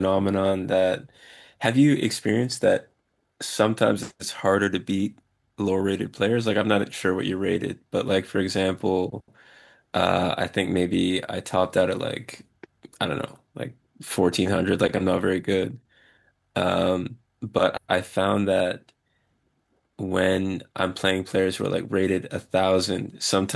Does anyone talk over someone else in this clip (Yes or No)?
No